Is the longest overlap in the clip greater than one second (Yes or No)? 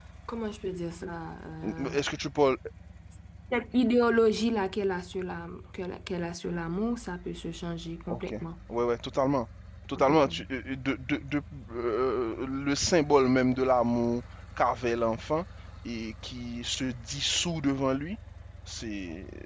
No